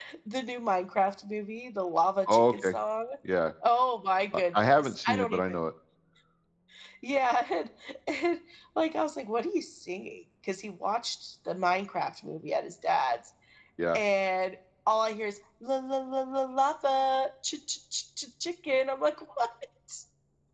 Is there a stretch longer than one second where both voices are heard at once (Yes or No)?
Yes